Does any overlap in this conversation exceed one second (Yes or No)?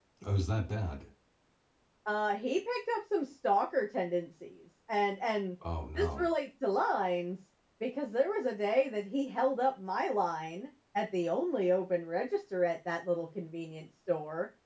No